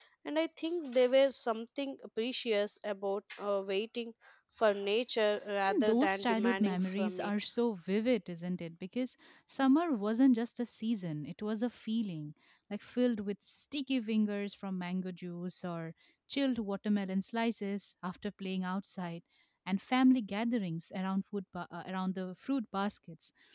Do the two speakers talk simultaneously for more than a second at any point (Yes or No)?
Yes